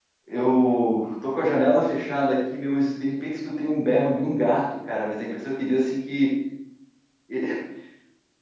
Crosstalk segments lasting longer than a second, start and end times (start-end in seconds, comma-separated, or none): none